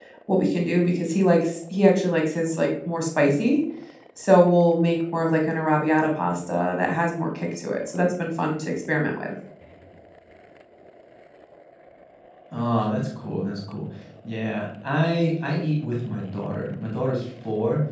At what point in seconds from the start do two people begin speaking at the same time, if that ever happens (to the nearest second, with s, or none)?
none